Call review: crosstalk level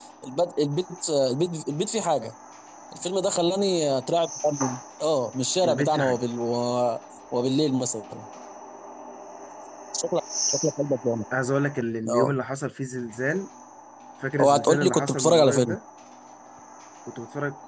present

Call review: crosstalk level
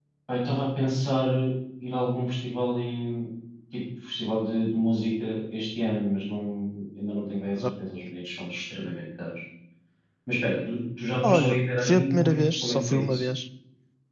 present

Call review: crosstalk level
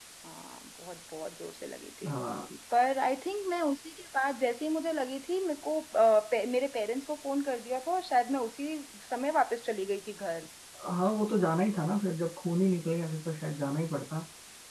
none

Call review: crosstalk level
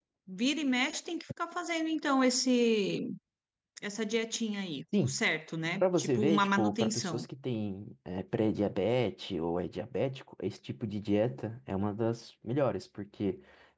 present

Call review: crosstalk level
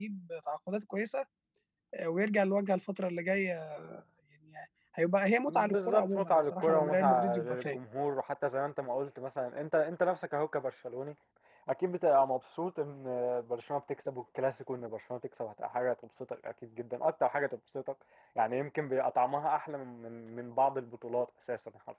present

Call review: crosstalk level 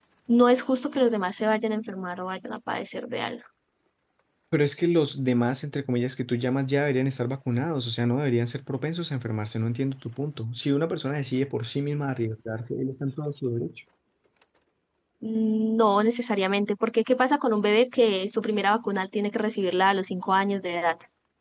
none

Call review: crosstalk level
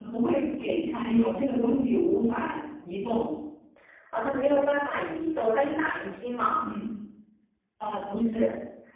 none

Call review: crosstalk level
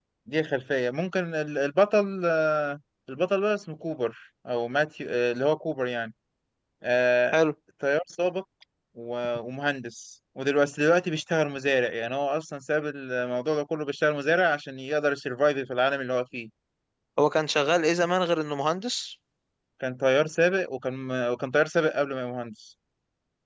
none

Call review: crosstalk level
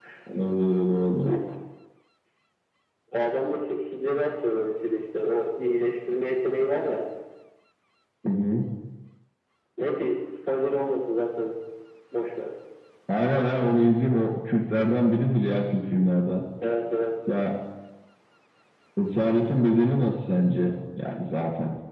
none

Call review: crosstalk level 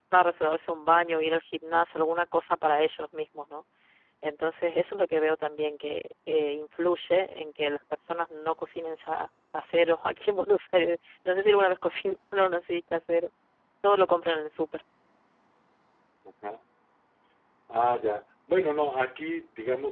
none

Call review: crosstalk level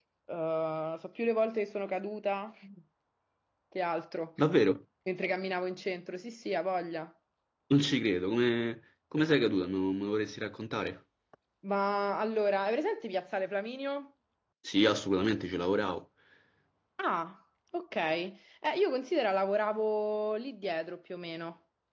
none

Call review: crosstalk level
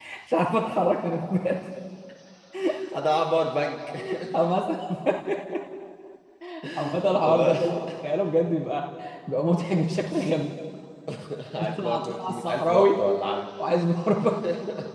present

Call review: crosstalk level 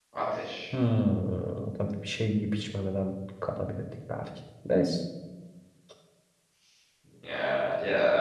none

